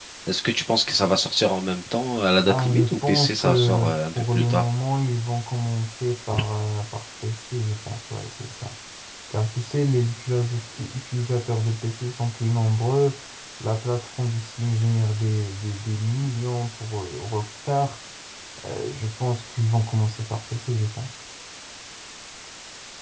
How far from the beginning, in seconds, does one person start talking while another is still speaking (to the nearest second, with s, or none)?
2 s